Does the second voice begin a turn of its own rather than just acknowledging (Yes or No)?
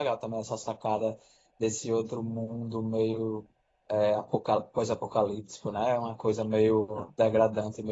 No